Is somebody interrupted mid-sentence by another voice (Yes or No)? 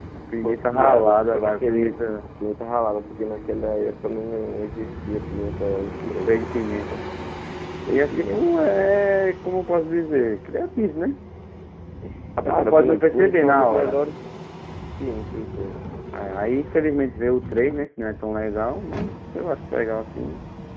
Yes